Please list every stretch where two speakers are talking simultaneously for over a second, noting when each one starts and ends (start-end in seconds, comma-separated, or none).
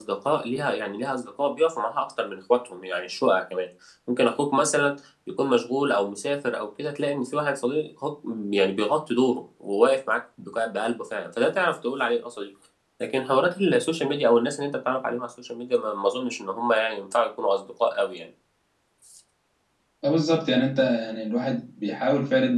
none